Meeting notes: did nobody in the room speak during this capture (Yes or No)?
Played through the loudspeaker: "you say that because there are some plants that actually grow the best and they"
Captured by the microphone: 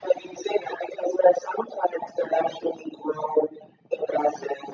Yes